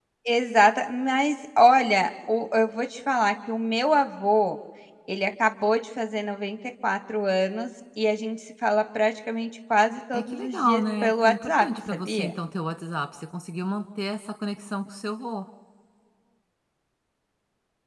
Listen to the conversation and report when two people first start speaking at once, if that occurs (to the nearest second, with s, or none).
10 s